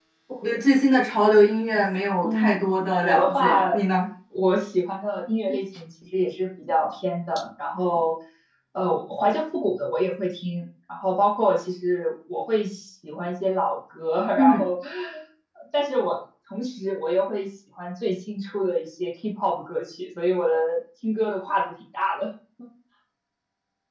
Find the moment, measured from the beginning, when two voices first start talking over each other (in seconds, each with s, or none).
2.2 s